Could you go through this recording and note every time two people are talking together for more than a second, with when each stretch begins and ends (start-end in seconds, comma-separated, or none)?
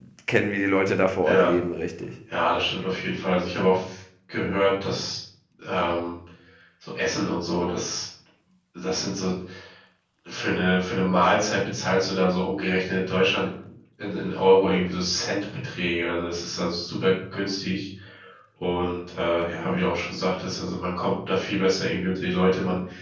none